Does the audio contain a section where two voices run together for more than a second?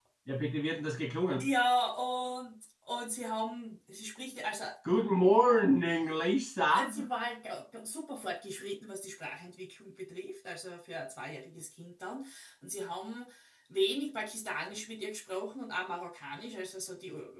No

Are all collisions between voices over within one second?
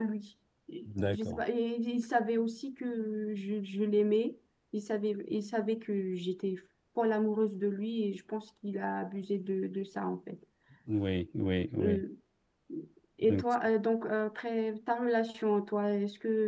Yes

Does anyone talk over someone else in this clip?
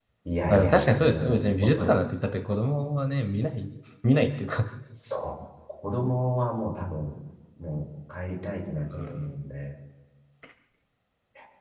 Yes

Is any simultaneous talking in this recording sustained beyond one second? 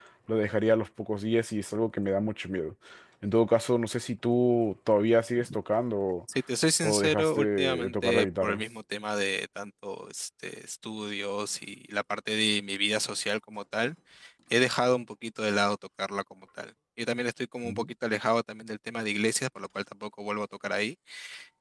Yes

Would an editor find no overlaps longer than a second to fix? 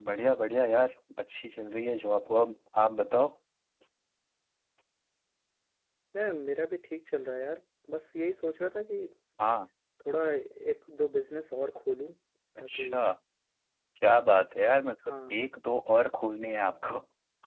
Yes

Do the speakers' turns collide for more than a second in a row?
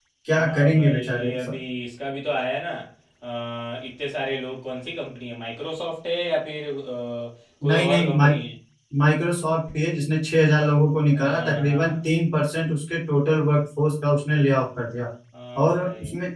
Yes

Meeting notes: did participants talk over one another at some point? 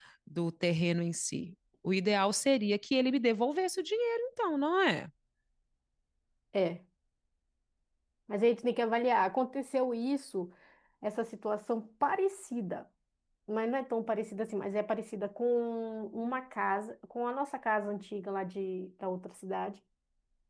No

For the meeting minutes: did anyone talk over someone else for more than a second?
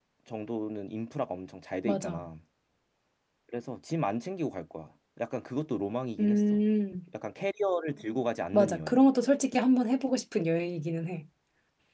No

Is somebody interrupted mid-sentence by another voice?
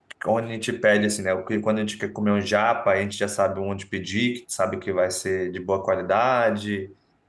No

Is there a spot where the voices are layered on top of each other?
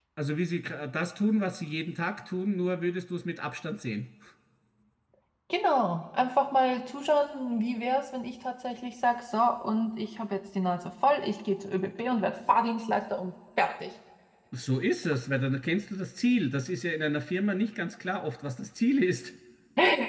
No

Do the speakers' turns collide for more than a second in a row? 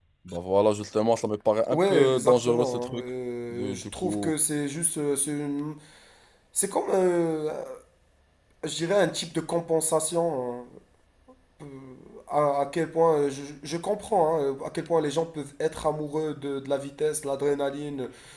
Yes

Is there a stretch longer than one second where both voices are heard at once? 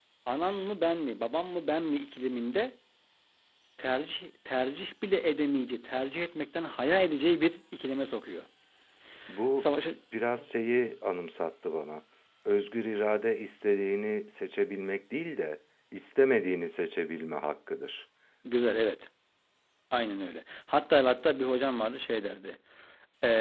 No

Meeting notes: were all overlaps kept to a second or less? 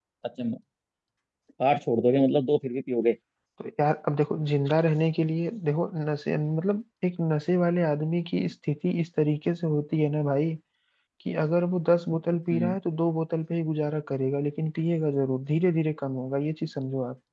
Yes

